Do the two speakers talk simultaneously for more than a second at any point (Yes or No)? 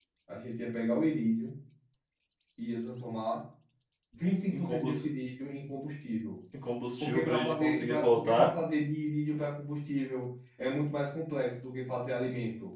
Yes